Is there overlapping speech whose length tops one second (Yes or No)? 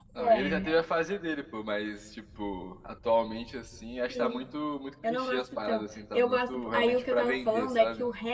Yes